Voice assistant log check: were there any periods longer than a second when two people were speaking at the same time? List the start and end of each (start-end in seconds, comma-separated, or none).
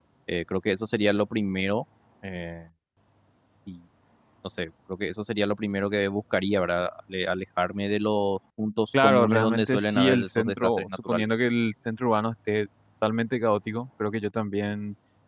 9.0-11.3